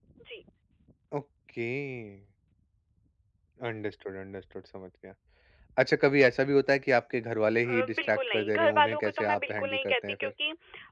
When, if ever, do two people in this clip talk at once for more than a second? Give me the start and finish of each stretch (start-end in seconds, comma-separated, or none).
7.7-10.3